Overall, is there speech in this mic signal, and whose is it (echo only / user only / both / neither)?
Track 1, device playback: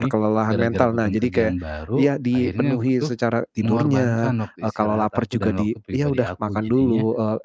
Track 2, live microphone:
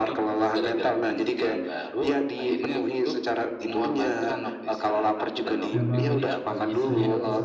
both